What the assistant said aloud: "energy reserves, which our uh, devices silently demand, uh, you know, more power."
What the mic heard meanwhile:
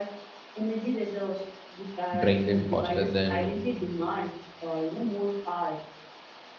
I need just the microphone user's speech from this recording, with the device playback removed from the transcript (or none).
drain them faster than